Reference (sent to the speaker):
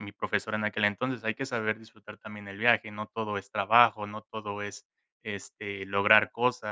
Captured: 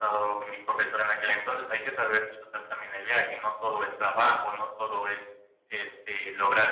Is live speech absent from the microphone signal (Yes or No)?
Yes